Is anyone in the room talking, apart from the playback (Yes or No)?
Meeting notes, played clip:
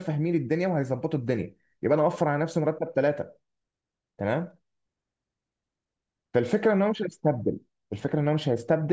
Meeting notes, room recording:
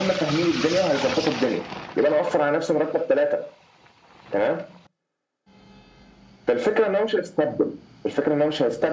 No